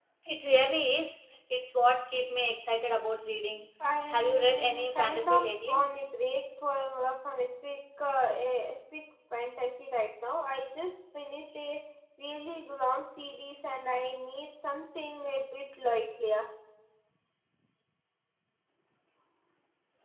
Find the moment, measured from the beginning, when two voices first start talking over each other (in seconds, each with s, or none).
4.1 s